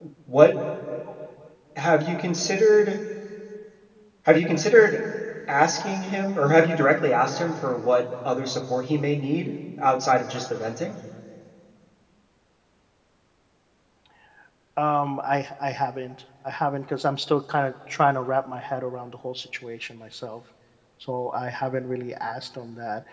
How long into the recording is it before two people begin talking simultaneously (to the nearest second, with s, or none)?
none